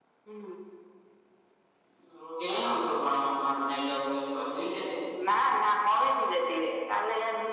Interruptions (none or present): none